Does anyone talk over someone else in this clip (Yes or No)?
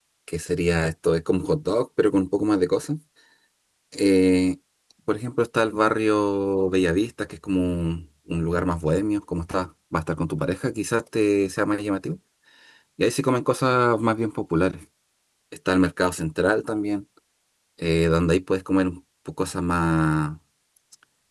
No